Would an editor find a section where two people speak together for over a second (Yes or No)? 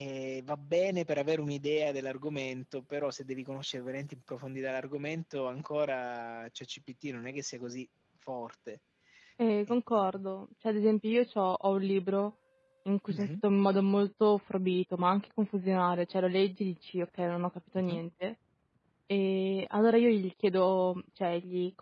No